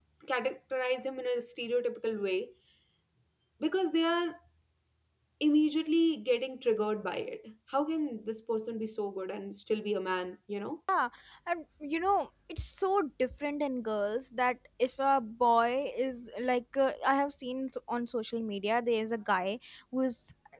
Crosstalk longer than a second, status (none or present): none